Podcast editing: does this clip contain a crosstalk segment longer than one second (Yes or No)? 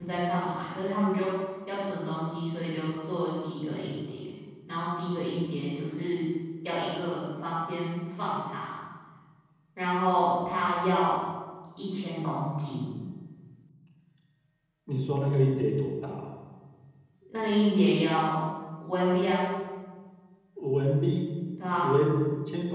No